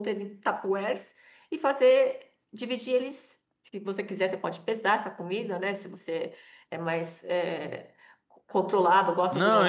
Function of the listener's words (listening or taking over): taking over